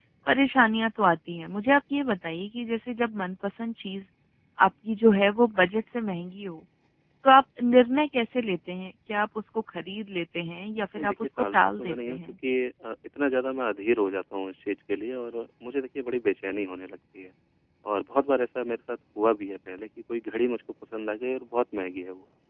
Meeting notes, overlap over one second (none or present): present